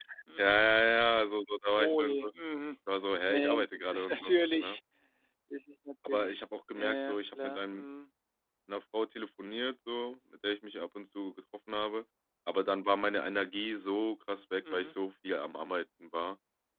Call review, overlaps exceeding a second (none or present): present